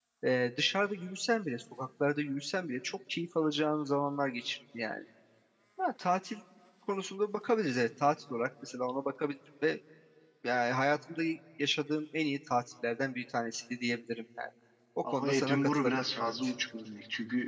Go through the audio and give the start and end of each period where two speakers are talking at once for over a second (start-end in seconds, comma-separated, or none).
15.1-16.3